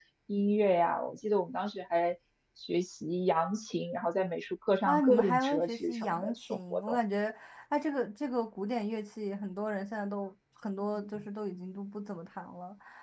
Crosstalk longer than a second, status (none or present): present